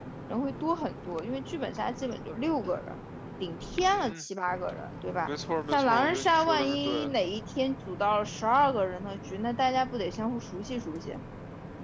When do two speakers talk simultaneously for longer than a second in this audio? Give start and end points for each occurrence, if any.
5.7-7.1

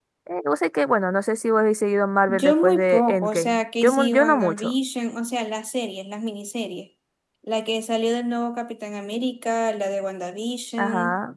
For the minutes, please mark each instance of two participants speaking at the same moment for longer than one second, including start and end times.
2.3-4.7

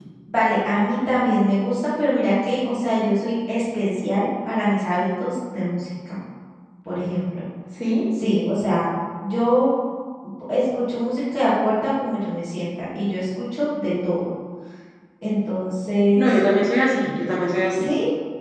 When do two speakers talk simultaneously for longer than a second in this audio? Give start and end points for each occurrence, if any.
none

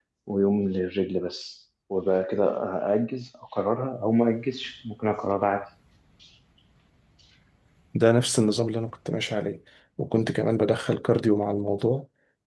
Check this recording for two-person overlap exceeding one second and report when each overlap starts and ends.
none

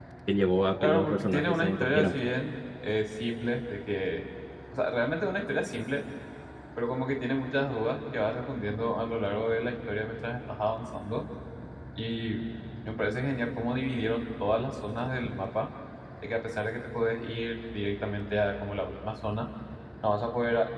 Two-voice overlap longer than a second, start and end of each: 0.8-2.1

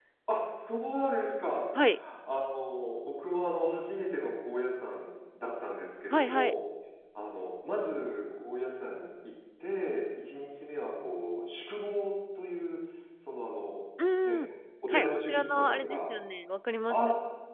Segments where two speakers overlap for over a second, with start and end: 14.9-16.1

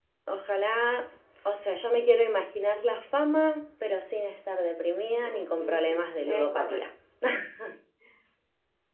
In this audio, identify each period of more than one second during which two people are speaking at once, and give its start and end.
5.2-6.8

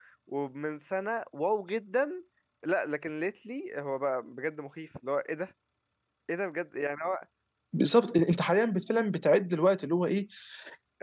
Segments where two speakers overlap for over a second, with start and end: none

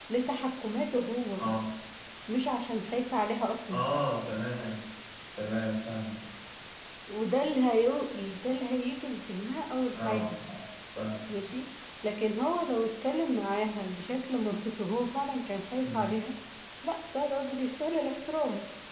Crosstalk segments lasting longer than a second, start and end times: none

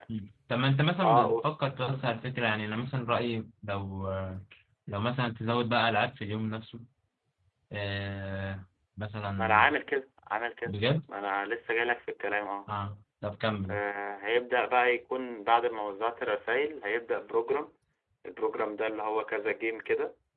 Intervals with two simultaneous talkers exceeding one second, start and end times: none

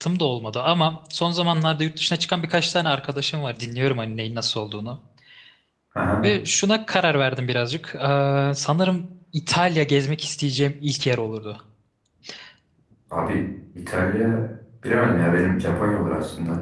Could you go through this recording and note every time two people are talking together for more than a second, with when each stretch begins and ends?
none

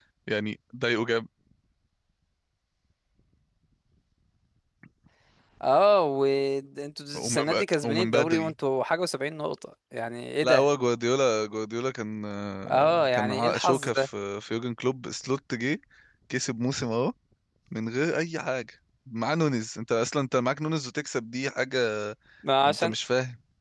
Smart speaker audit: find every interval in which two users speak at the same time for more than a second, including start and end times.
7.2-8.5, 12.7-14.1

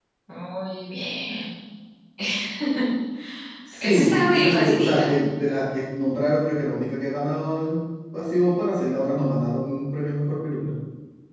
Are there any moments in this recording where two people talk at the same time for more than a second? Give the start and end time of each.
3.8-5.1

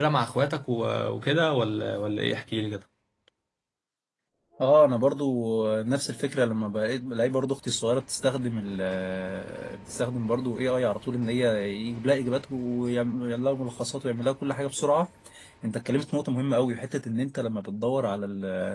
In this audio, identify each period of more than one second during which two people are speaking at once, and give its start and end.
none

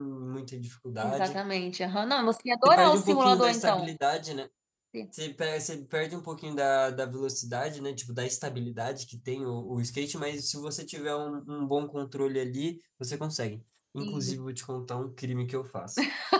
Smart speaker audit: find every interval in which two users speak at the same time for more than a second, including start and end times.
2.6-3.9

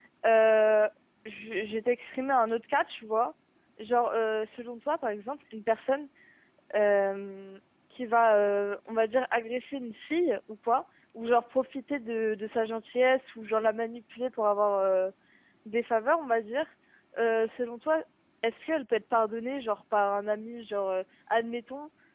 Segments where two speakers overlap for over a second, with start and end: none

